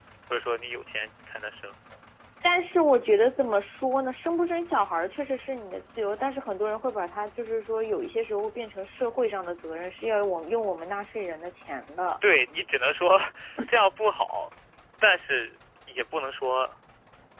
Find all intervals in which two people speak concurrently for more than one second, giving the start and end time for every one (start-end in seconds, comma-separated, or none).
none